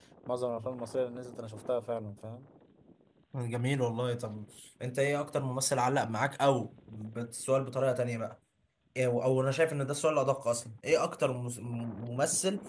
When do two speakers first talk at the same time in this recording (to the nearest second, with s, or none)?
none